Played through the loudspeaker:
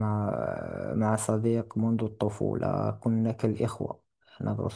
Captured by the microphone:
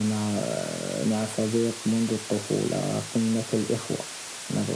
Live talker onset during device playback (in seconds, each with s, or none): none